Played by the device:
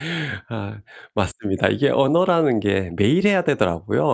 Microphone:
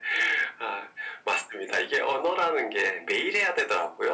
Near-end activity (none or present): none